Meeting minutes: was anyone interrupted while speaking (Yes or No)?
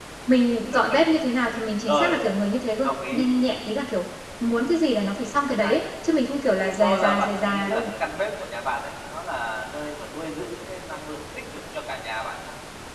Yes